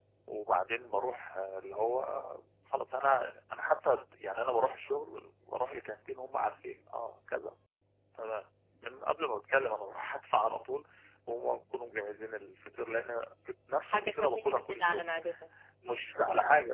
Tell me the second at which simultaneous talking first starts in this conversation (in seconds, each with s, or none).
13.8 s